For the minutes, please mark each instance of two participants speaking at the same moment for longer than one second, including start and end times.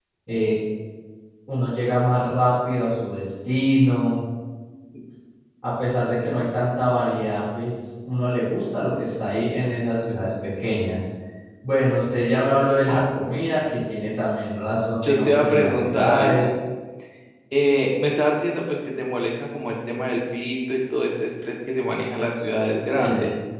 15.0-16.5

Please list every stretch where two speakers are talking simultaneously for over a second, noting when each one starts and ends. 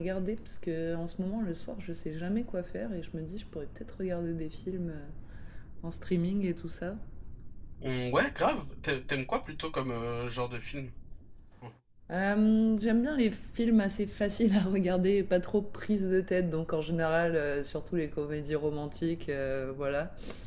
none

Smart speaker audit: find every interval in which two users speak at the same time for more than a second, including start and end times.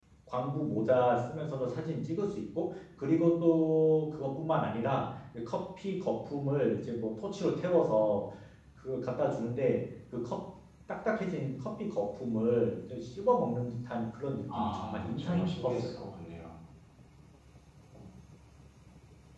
14.6-16.0

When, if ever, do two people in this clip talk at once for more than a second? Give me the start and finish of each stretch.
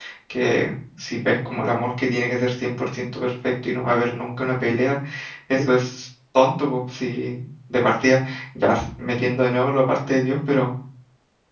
none

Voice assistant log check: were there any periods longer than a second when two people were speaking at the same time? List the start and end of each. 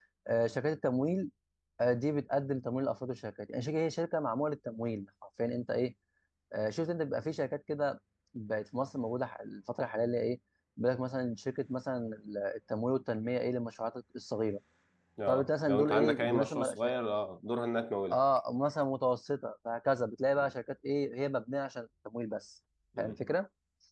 15.3-16.7

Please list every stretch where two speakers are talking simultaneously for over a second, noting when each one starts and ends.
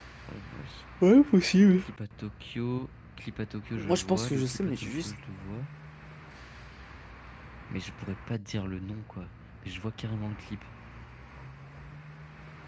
3.8-5.1

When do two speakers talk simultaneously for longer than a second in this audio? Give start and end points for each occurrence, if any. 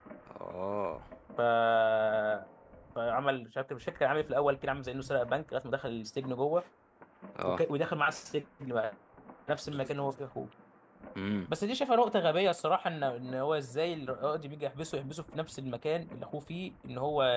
none

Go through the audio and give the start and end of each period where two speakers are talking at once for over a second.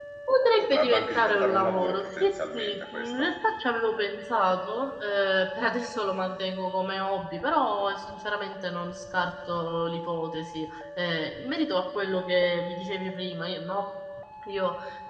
0.6-3.3

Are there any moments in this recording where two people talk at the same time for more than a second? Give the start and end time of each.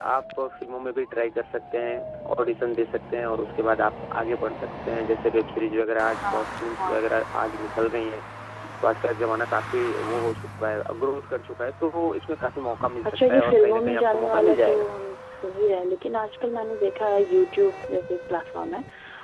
13.1-14.9

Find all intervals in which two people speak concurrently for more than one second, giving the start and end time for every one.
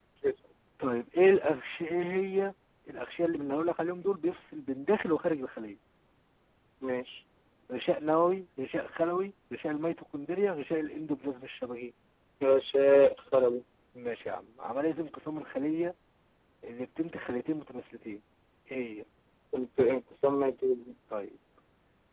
none

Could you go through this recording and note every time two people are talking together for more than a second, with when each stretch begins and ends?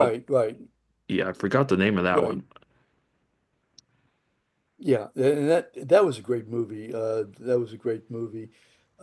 none

